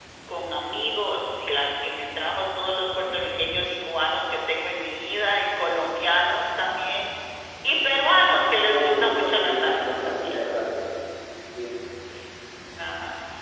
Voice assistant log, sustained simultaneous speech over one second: present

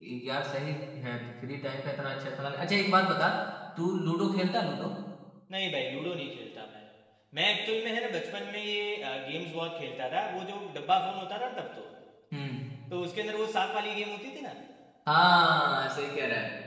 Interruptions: none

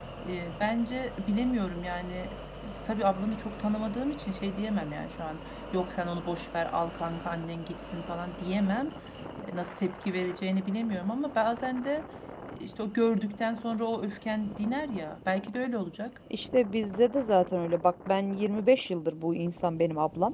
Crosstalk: none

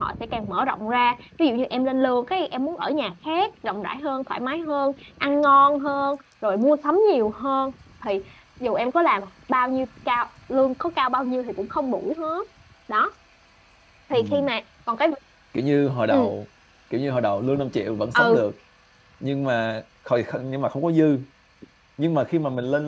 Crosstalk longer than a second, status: none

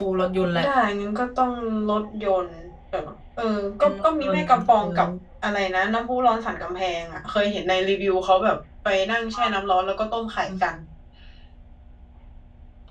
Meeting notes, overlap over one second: present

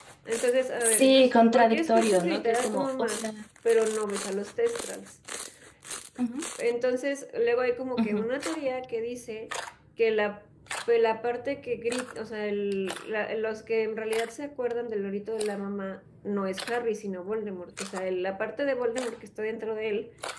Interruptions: present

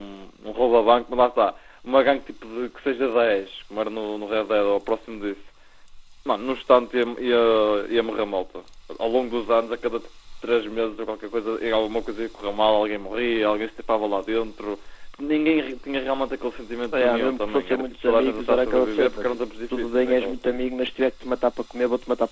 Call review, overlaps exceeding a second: present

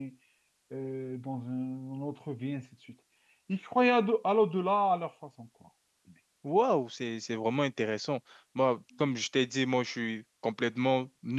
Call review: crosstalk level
none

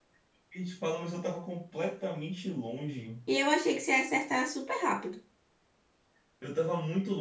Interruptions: none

